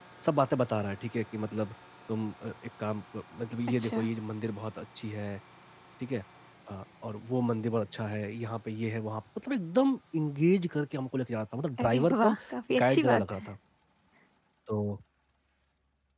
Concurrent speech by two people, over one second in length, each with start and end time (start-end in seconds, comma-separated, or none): 11.8-13.5